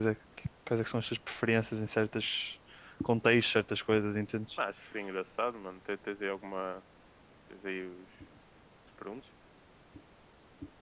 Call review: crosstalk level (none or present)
none